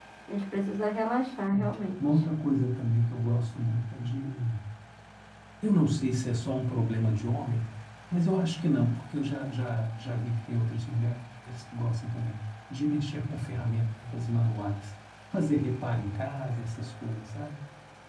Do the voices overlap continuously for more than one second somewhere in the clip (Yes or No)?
No